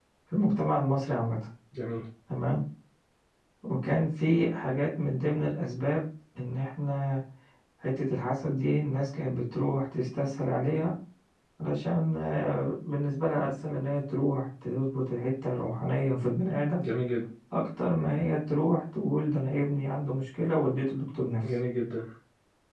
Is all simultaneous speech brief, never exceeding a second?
Yes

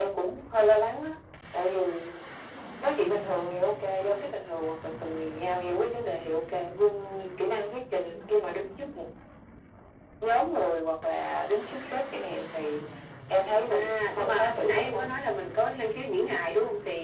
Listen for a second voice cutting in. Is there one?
Yes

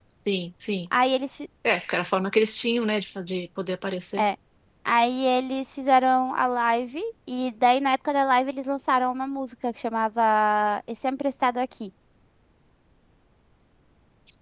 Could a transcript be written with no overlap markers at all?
Yes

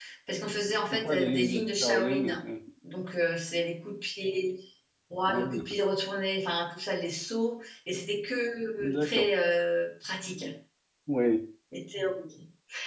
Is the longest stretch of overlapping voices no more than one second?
No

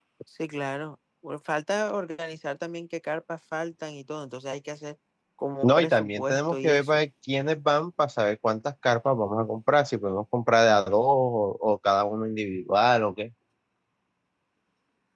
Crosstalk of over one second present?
Yes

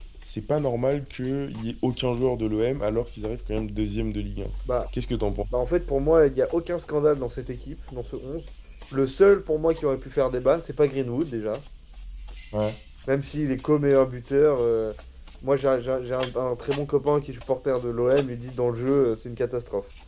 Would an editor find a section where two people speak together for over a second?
No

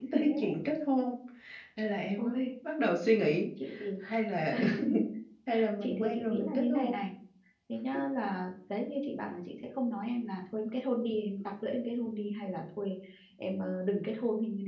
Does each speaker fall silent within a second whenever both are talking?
No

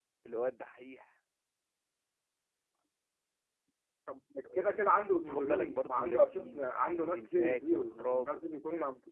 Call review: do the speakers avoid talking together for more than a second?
No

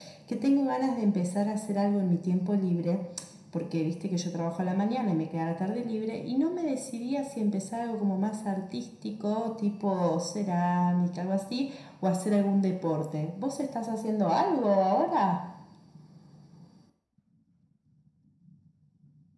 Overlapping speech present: No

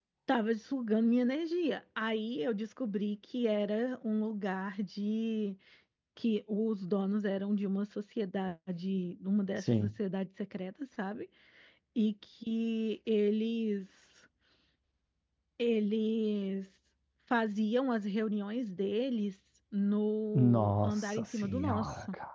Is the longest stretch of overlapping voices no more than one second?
No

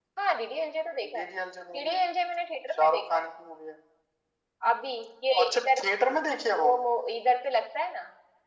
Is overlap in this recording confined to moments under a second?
Yes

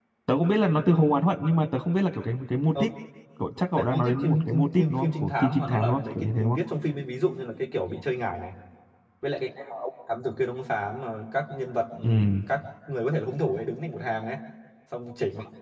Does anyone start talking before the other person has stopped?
Yes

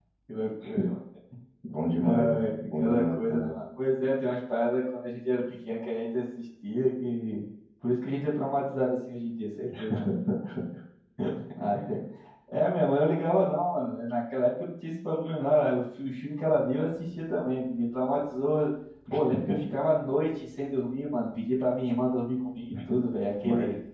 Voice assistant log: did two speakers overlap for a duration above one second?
Yes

